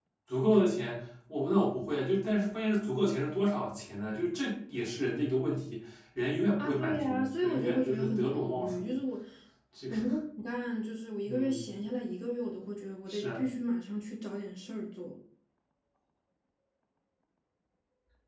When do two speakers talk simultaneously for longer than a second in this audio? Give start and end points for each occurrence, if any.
6.6-8.9

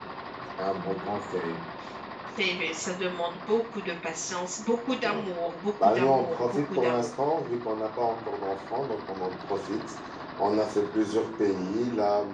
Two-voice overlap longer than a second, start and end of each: 5.8-7.1

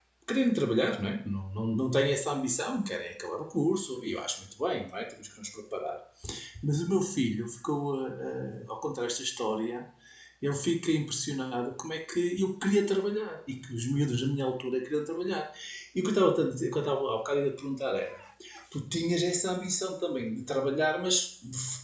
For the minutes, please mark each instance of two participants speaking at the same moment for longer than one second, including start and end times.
none

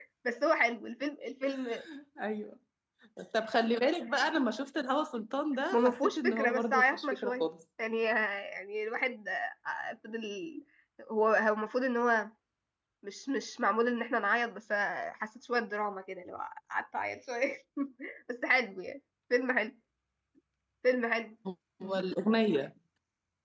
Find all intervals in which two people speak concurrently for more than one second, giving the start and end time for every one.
5.7-7.5

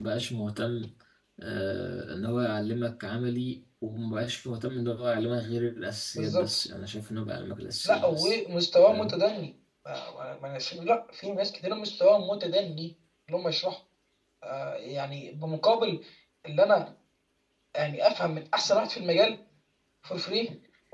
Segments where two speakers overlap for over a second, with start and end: none

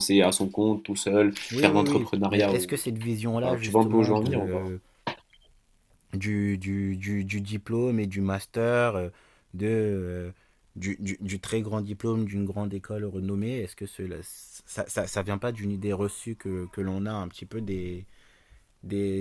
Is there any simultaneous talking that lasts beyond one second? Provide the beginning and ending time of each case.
1.5-2.8, 3.4-4.7

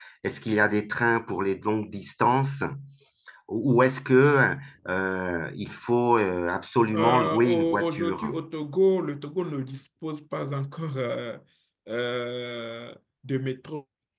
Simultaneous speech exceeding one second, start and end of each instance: 6.9-8.3

